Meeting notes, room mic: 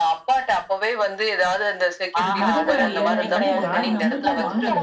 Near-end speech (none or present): present